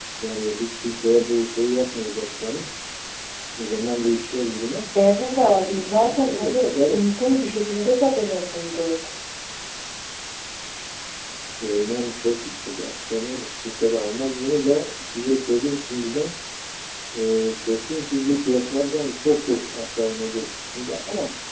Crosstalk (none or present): present